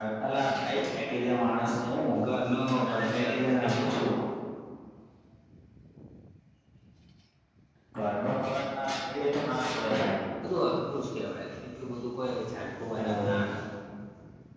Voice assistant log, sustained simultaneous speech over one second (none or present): present